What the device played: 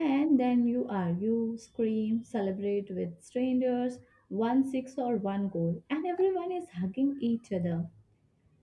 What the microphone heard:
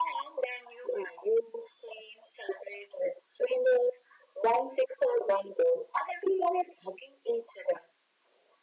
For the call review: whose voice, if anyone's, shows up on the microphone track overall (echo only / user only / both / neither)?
echo only